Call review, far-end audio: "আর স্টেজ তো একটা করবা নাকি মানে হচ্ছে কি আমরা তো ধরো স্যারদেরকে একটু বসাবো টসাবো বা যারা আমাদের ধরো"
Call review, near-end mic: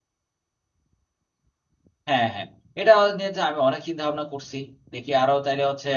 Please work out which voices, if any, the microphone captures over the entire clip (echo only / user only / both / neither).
user only